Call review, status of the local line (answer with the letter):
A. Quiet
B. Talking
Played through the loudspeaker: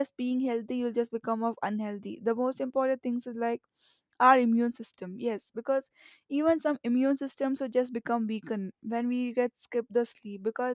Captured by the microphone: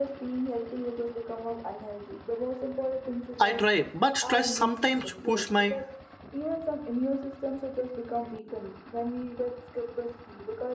B